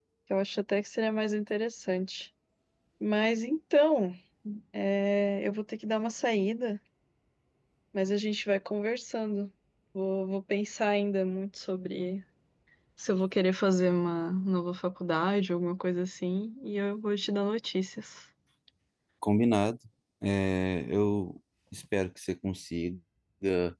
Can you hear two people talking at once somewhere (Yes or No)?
No